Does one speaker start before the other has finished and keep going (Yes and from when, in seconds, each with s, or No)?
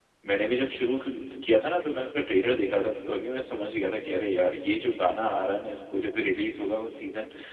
No